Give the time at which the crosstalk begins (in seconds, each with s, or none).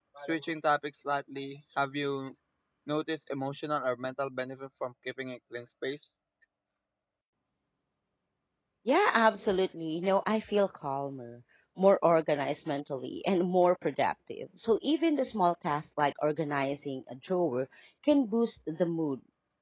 none